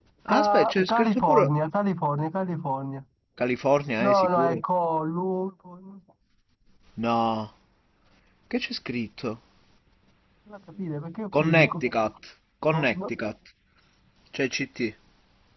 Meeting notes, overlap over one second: present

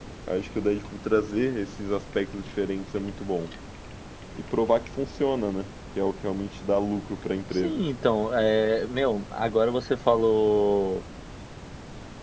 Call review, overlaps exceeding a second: none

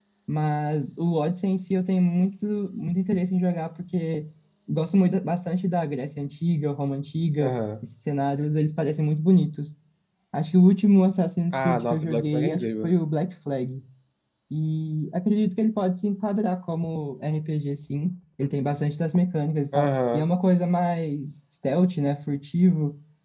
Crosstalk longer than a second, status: present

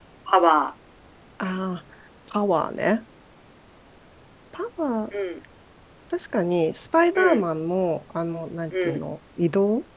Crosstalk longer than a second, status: none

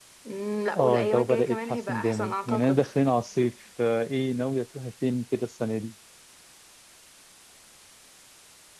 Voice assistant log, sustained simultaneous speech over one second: present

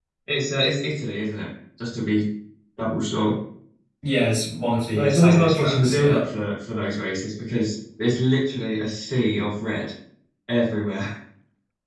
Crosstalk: present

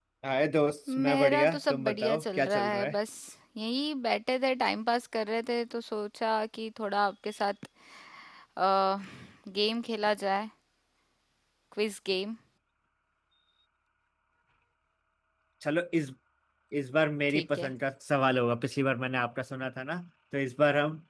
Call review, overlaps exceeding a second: present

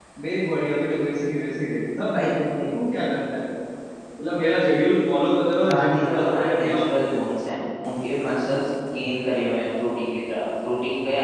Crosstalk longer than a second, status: present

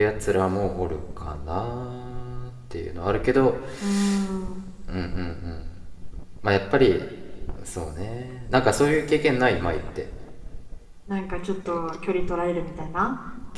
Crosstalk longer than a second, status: none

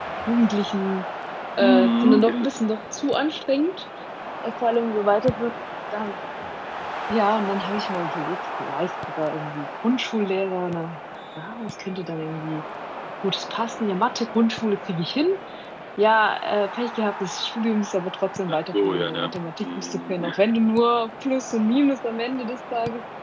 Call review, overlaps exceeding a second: present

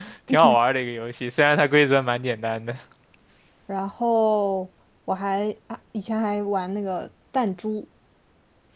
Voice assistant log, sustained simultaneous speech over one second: none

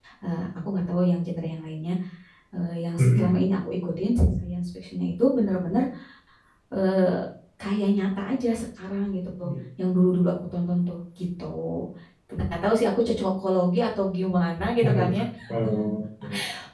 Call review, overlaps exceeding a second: none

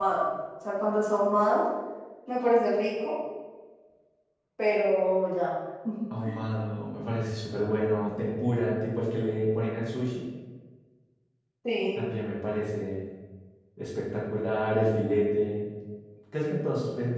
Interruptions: none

